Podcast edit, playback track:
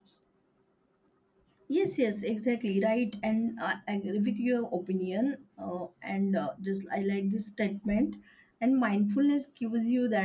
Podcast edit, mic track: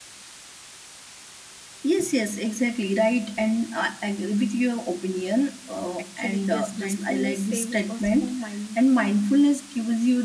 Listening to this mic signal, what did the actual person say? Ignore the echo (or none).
uh, actually yes mindfulness saves us from mindful